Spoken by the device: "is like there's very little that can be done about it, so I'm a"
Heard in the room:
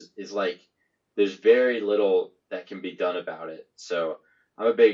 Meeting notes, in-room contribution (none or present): none